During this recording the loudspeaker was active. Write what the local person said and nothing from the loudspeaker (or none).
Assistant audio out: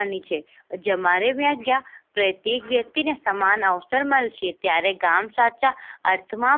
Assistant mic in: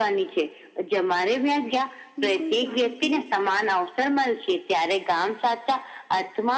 બિલકુલ સાચું કીયું.